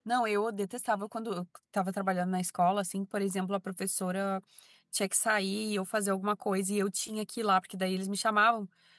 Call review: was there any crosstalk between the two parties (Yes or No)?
No